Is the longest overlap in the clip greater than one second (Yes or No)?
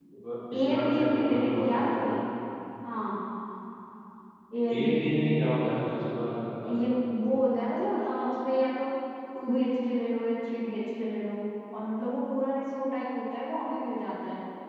Yes